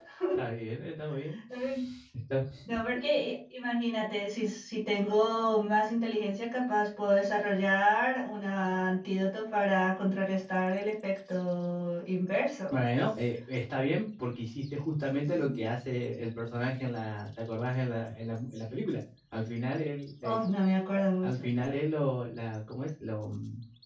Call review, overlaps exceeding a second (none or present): none